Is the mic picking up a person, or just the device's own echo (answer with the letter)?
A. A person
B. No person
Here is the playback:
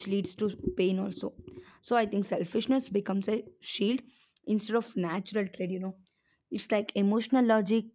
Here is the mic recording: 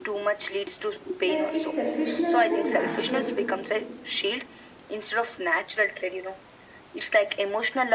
A